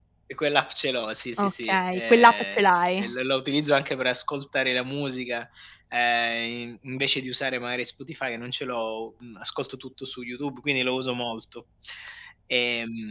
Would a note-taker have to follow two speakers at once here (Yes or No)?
Yes